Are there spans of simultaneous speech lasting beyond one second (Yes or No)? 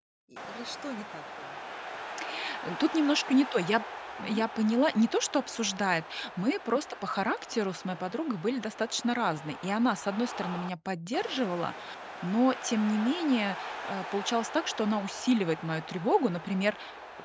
No